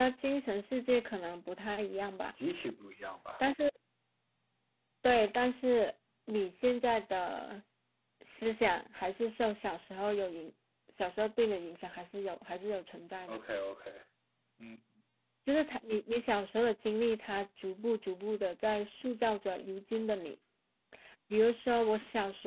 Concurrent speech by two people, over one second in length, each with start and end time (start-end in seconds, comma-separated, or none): none